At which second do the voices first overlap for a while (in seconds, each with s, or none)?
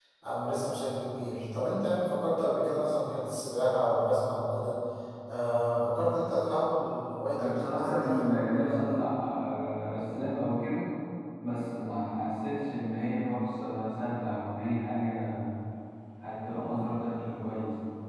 7.4 s